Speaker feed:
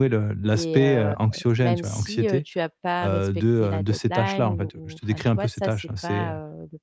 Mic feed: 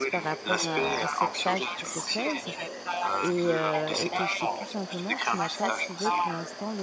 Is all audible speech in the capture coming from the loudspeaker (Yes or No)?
No